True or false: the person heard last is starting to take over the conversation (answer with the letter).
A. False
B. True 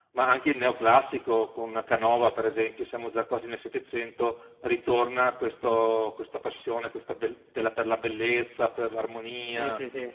B